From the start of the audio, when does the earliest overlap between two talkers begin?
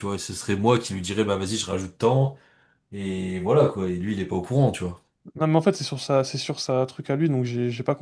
none

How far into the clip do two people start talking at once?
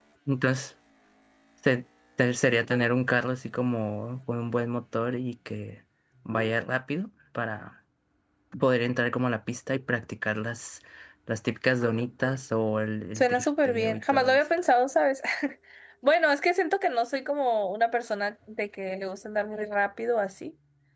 13.2 s

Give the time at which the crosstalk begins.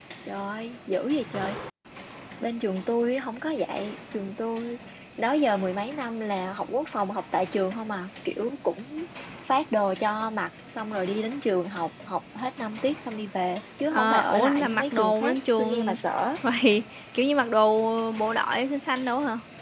13.9 s

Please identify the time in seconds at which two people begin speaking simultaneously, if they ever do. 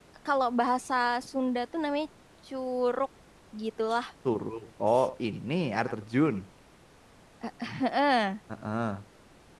none

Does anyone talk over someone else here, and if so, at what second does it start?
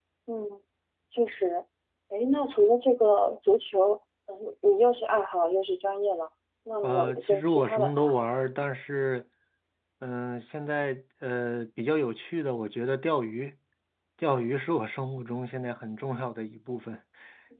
6.8 s

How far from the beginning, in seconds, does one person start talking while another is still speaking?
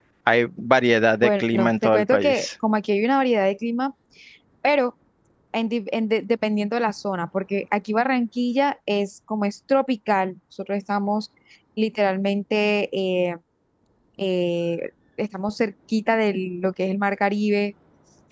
1.2 s

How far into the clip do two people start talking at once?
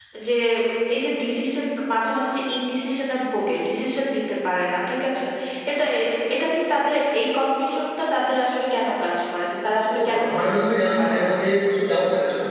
9.9 s

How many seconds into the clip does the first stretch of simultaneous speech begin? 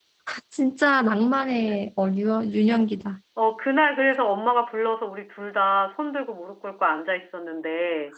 none

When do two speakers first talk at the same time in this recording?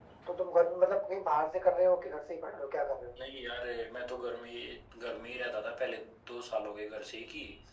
none

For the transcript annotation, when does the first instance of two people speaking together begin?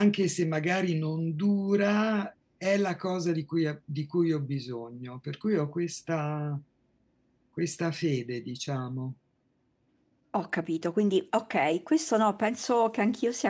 none

